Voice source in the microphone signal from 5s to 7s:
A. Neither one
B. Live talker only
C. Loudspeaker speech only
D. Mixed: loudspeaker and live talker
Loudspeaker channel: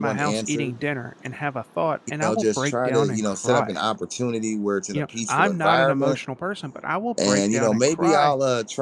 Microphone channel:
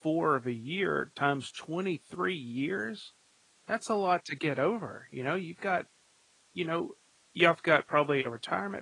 B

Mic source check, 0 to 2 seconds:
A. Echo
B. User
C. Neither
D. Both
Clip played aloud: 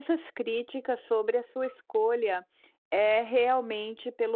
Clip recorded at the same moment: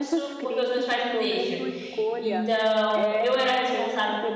D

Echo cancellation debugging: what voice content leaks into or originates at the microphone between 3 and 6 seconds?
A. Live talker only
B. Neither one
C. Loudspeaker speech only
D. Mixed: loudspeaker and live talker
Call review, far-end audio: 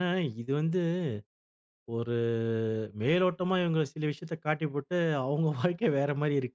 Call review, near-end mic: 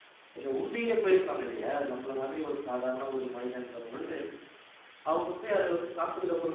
A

